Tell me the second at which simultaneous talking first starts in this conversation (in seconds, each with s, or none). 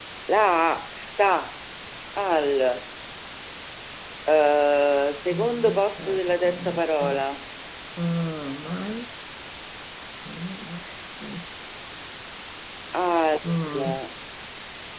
5.3 s